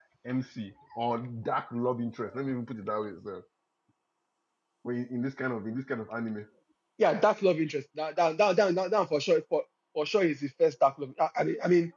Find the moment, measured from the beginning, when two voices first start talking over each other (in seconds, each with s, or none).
none